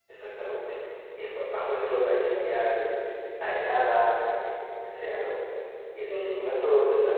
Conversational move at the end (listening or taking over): listening